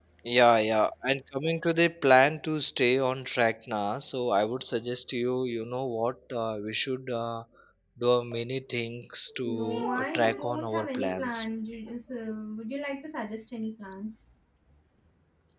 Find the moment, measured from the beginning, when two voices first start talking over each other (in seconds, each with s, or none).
9.3 s